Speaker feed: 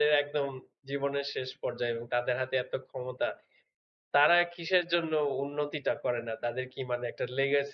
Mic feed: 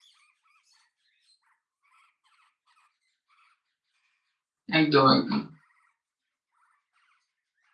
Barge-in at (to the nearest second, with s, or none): 5 s